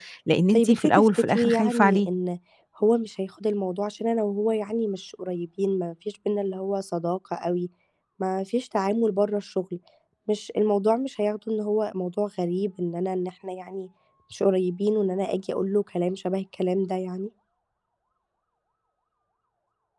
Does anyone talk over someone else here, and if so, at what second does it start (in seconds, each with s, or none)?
0.5 s